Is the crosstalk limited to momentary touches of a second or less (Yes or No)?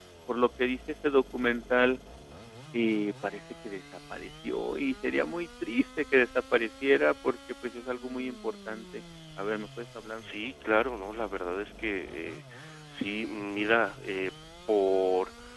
Yes